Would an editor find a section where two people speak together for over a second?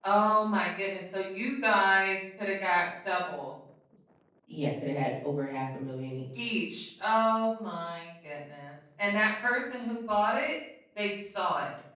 No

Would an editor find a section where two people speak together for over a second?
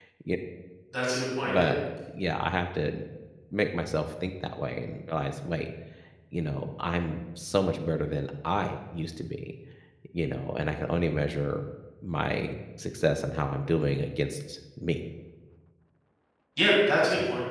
No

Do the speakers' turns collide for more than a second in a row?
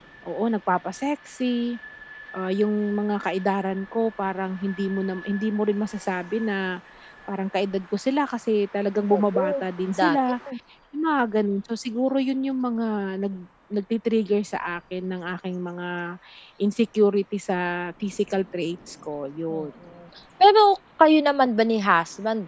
No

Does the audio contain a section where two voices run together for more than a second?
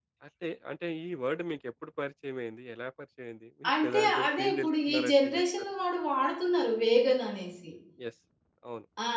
Yes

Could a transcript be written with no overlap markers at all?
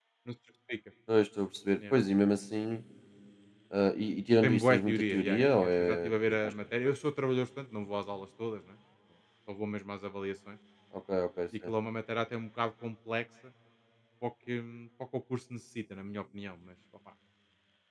No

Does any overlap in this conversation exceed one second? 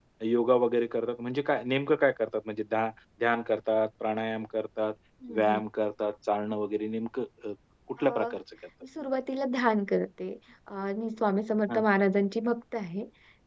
No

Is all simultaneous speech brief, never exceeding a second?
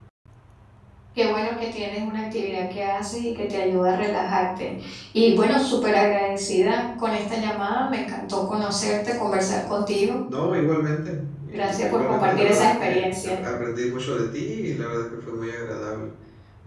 No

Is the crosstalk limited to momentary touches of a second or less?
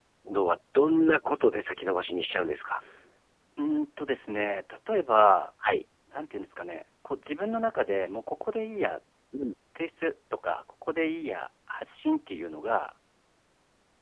Yes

